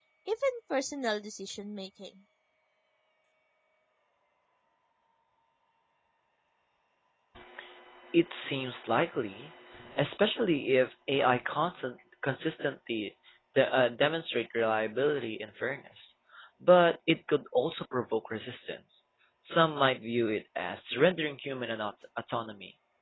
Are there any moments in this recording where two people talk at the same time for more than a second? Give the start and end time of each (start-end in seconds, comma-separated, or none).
none